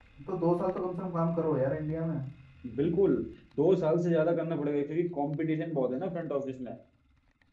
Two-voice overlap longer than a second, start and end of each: none

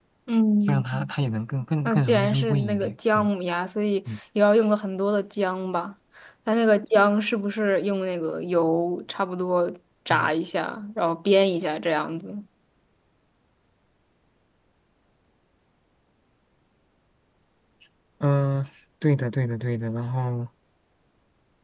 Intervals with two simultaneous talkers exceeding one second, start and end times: 1.8-3.3

